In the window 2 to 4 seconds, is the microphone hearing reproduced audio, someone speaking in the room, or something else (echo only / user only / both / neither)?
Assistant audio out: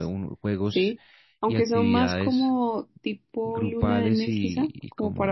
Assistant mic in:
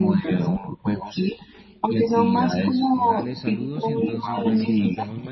both